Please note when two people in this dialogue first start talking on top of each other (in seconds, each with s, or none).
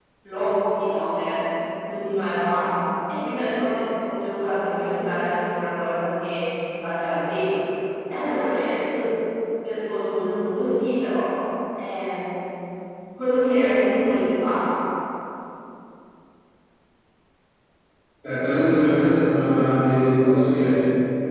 none